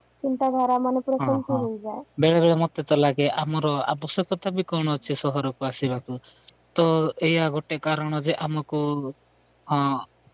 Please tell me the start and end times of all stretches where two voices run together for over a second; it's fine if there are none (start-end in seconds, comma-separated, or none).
none